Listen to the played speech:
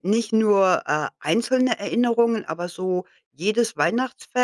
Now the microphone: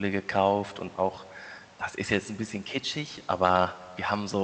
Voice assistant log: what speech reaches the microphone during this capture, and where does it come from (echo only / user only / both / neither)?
user only